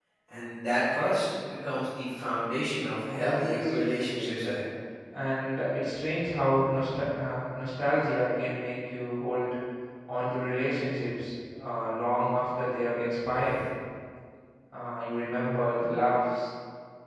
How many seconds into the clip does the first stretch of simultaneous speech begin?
3.1 s

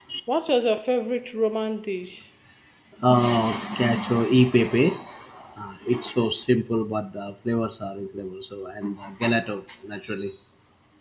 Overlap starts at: none

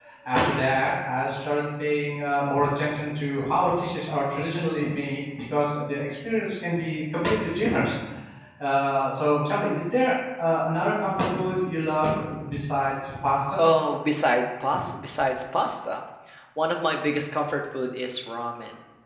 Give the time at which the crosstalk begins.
none

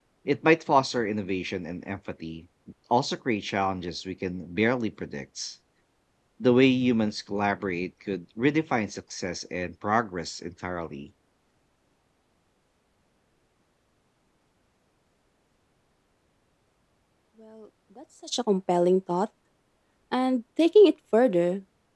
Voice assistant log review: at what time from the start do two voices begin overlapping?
none

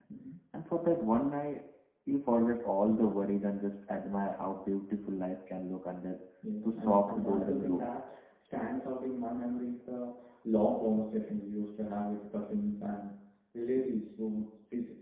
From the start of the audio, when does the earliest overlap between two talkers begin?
6.6 s

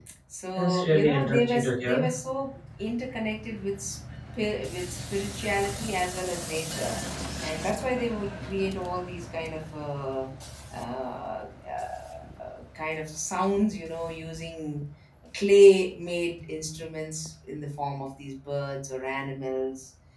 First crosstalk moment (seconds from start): 0.6 s

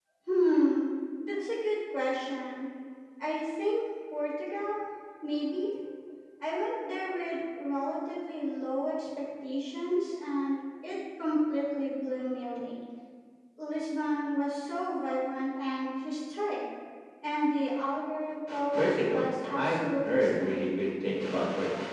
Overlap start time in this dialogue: 18.5 s

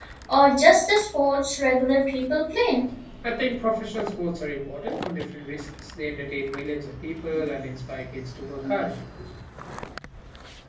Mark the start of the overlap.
none

